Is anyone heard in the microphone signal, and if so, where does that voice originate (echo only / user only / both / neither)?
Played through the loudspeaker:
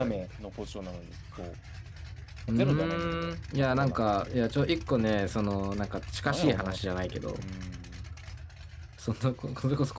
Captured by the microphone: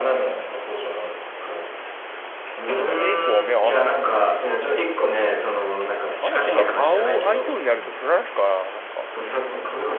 both